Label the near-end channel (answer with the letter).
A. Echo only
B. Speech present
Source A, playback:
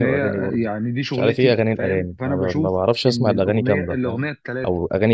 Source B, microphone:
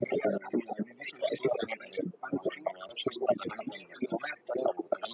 A